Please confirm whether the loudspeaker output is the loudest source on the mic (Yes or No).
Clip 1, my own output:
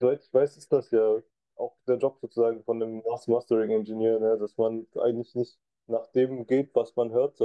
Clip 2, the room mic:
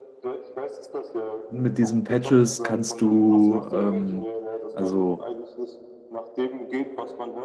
No